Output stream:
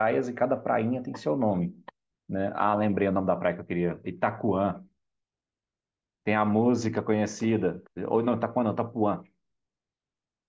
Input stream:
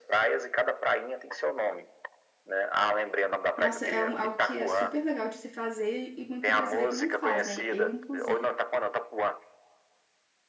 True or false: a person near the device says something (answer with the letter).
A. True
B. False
A